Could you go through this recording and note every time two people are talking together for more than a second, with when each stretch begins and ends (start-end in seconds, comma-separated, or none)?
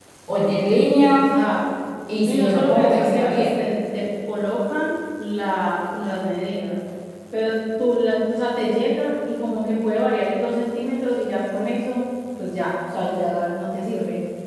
2.2-3.5